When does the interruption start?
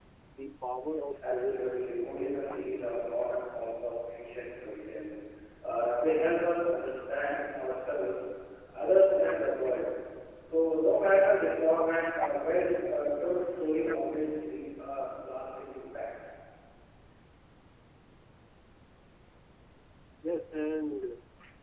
1.2 s

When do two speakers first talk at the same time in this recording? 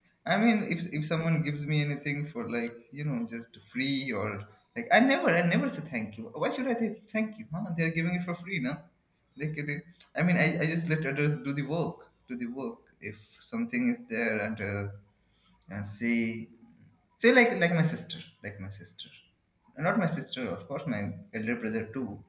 none

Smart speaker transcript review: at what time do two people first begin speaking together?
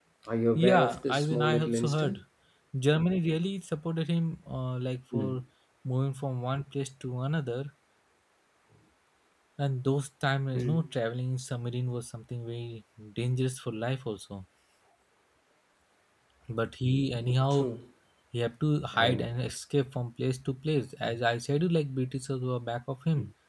0.6 s

